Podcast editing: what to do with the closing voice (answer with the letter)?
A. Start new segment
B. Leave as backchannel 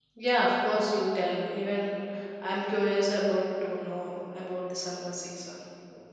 A